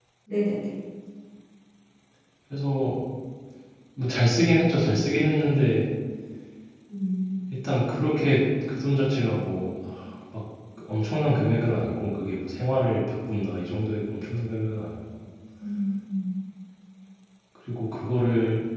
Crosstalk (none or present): none